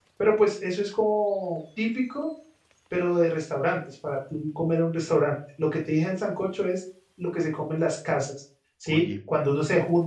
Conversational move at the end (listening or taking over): listening